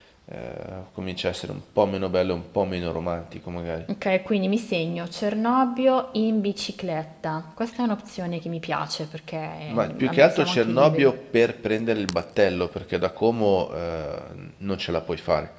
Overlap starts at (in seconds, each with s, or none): 9.7 s